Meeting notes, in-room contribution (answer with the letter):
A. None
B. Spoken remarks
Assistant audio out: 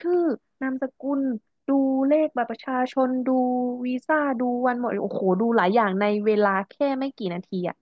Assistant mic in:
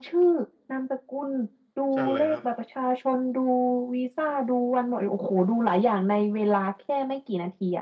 B